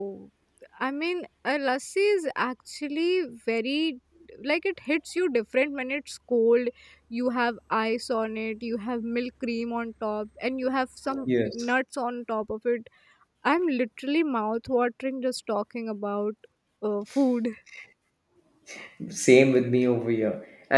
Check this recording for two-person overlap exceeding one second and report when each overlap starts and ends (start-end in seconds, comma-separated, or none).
none